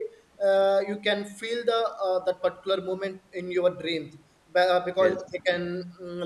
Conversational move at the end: listening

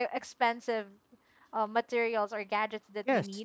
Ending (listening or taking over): listening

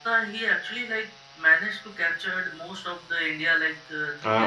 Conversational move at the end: taking over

